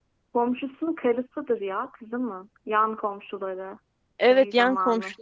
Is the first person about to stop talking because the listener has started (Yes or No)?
Yes